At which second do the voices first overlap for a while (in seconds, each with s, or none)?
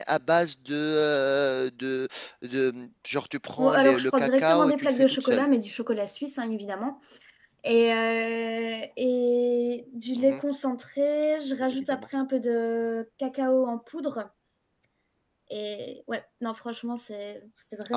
3.6 s